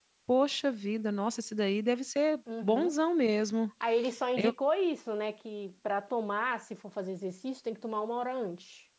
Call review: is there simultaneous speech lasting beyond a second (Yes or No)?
No